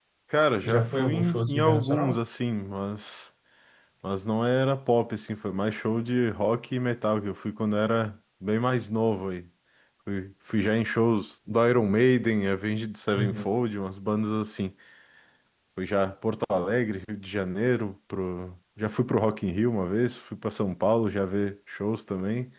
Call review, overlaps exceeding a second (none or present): present